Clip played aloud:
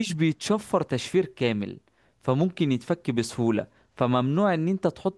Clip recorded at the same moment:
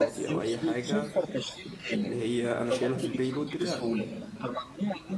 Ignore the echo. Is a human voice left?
Yes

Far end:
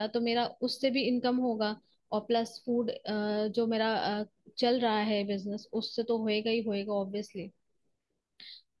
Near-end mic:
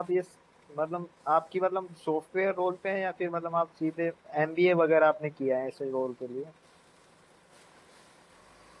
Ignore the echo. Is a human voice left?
Yes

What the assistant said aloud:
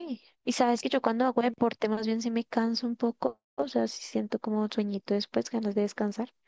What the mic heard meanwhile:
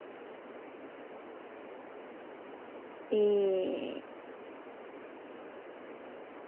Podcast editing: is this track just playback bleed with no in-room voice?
No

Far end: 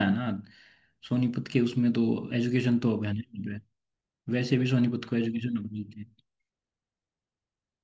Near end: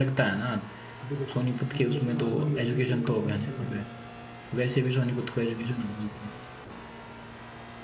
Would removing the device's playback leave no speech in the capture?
No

